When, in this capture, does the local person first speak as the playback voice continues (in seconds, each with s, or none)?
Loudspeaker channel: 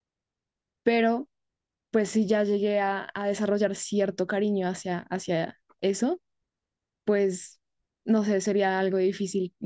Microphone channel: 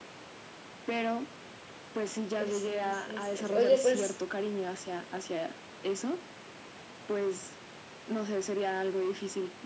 2.4 s